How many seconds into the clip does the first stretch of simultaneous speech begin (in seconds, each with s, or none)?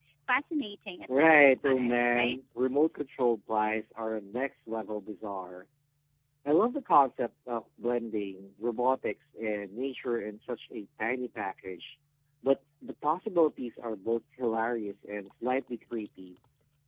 1.2 s